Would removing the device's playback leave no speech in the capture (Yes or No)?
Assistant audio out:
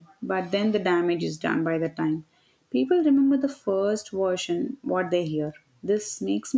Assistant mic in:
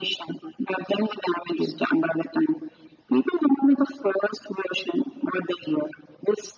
Yes